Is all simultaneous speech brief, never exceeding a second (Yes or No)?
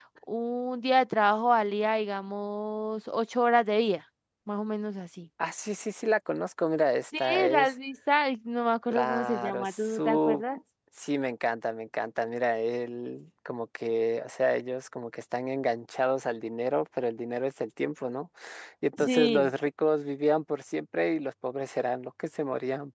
No